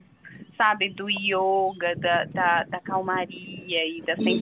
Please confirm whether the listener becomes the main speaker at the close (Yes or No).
Yes